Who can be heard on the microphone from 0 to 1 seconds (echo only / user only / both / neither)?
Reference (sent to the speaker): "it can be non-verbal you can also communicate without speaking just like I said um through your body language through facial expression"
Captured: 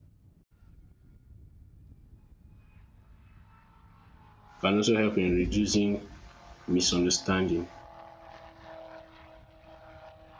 neither